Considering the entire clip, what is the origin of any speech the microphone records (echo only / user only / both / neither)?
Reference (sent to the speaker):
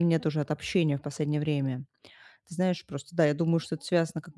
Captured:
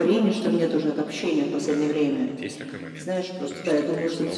both